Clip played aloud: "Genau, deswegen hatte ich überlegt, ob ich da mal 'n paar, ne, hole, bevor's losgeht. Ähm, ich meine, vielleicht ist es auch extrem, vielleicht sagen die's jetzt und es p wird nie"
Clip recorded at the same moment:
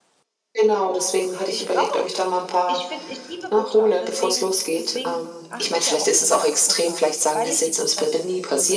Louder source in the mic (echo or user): echo